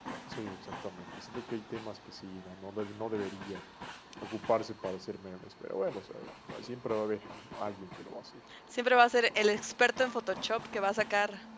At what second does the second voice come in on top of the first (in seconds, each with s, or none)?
none